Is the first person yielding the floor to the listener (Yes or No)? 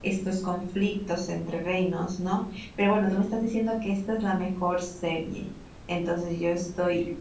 No